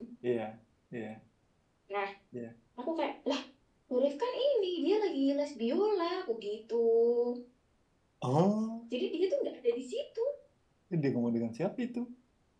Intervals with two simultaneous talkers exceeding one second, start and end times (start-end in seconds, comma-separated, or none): none